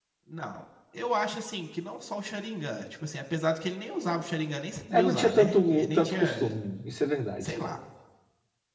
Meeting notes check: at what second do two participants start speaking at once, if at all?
5 s

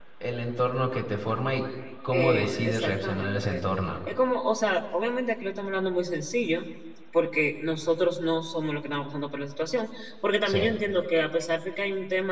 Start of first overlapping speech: 2 s

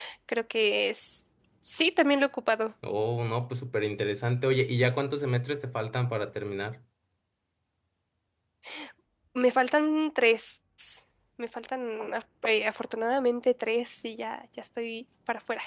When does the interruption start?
none

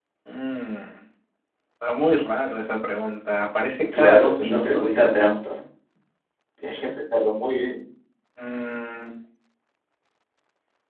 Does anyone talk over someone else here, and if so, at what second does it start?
4 s

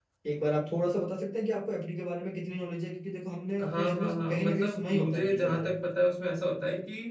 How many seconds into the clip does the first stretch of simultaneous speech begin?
4 s

